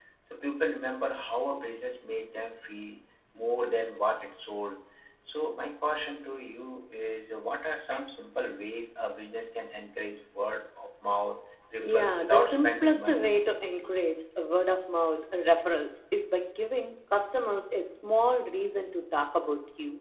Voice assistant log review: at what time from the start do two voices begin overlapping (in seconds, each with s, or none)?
11.8 s